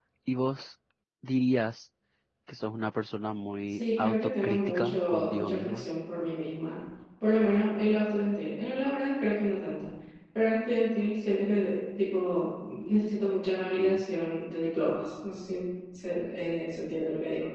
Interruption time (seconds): 4 s

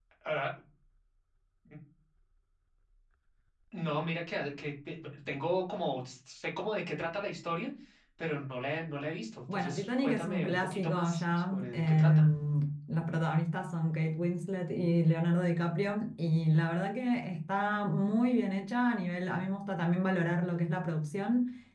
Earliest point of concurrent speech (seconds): 9 s

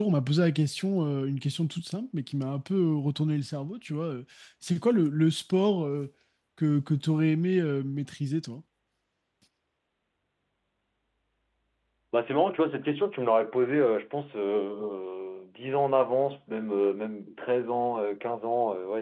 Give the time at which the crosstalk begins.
none

